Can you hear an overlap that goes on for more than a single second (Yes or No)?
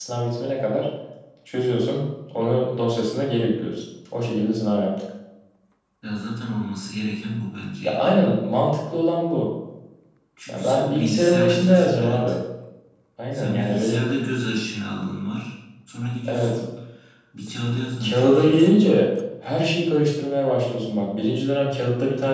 Yes